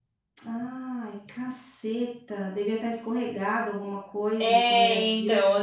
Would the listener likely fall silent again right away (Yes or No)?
No